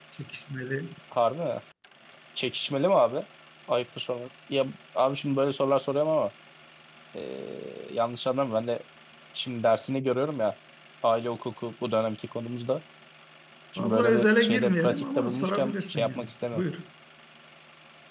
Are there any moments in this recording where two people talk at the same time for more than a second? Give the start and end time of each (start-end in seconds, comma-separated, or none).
13.8-16.6